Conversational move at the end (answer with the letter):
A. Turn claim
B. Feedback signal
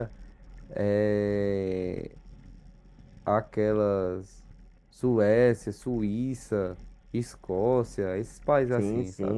A